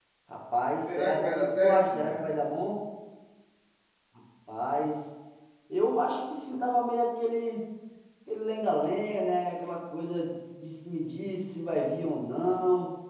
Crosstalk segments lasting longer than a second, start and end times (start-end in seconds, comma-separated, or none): 0.9-2.3